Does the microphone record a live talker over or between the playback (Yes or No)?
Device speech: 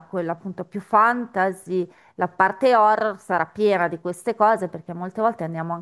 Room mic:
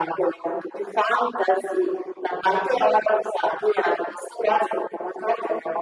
No